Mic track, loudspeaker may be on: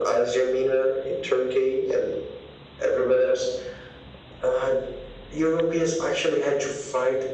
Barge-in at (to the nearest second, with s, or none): none